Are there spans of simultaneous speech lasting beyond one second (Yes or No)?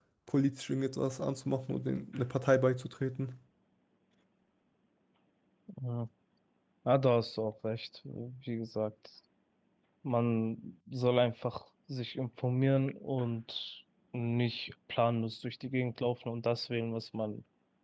No